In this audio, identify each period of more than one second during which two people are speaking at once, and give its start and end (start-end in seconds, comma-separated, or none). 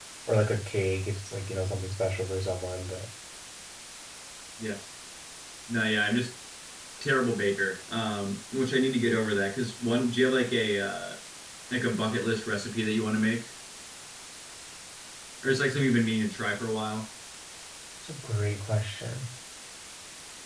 none